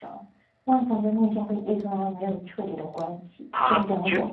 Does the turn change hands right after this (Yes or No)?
Yes